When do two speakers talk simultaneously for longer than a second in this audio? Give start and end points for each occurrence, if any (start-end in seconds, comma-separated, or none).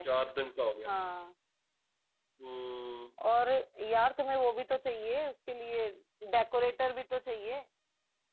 none